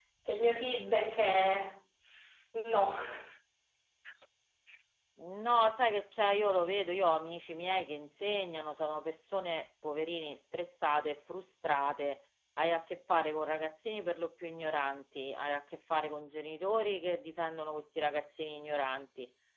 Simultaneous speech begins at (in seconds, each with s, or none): none